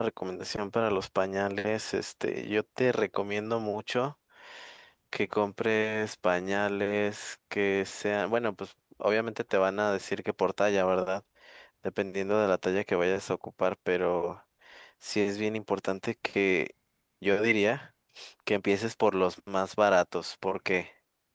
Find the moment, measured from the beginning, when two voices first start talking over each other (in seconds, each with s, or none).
none